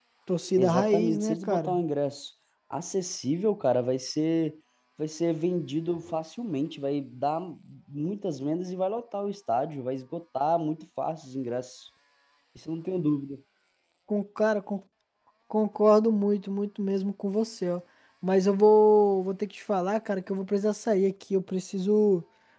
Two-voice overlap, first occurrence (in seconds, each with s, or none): 0.6 s